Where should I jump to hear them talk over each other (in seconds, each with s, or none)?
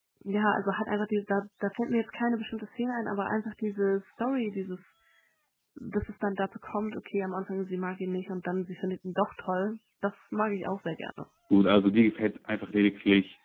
none